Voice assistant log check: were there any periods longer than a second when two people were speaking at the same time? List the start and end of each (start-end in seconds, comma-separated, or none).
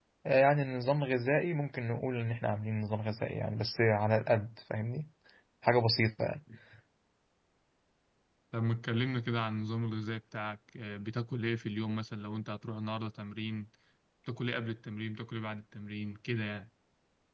none